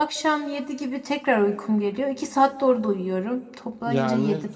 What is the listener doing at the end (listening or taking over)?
taking over